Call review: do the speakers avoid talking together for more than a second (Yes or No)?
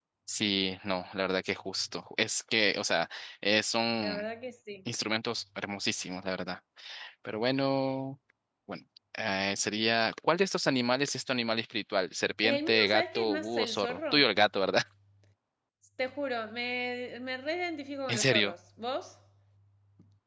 No